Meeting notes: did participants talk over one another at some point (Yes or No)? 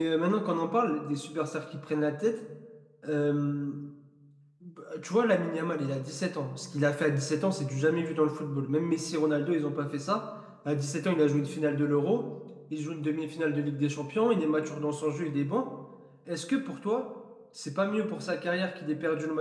No